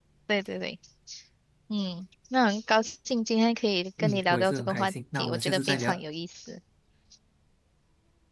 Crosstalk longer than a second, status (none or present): present